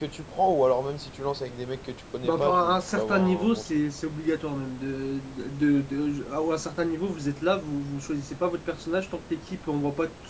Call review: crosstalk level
present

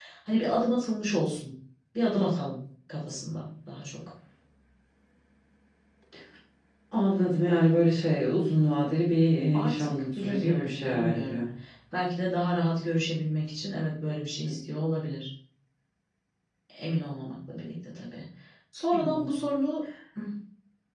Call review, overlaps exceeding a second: present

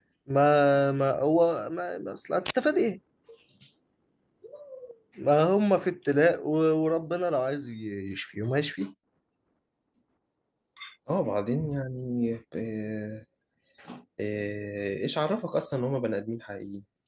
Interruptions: none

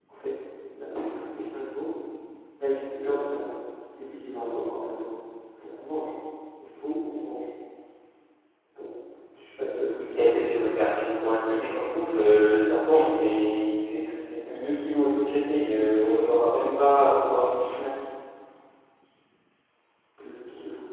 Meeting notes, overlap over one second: none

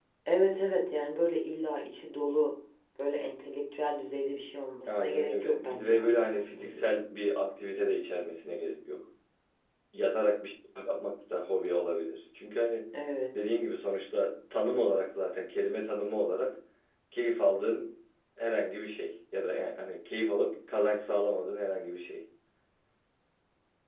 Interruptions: present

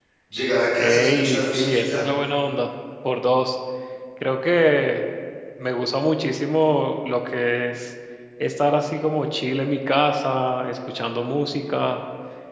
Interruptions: present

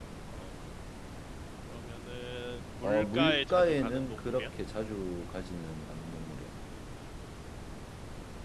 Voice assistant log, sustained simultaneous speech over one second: present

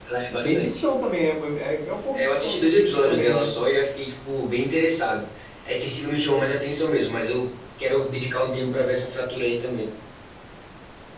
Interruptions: present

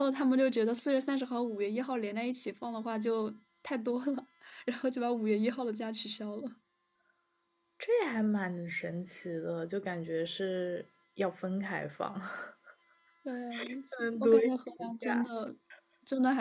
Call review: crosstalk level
present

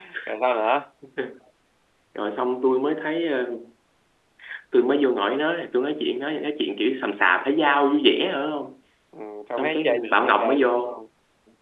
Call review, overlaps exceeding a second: present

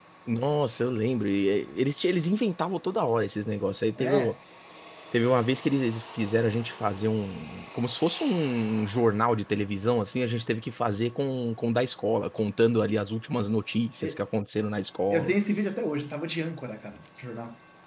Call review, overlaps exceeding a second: none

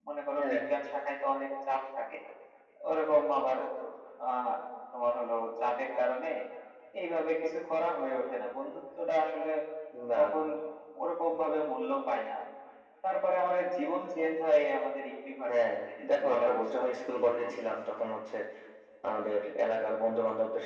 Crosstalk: present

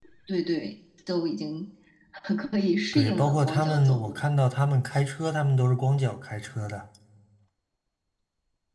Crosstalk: present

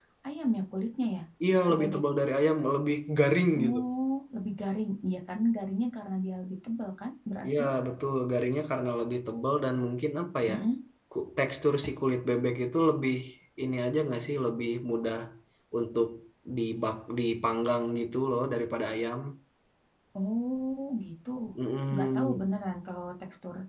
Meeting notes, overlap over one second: none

